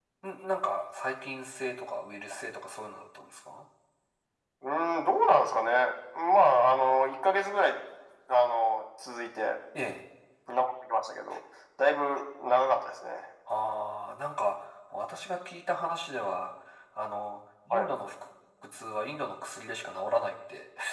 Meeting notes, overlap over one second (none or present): none